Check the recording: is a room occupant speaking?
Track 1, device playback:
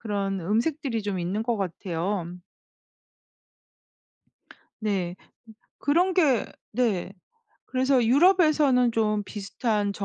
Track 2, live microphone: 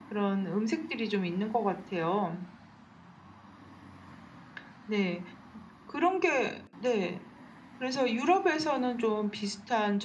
No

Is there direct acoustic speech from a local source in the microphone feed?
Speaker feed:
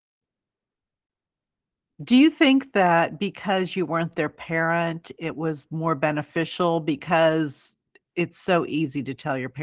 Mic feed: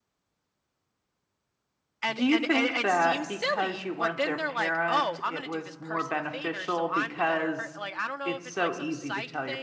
Yes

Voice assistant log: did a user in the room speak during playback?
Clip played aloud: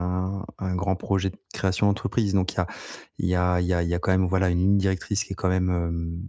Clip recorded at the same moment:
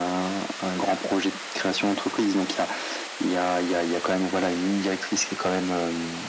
No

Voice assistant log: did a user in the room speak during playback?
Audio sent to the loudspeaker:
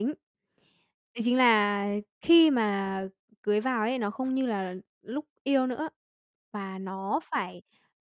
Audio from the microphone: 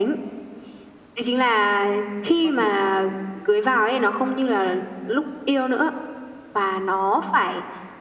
Yes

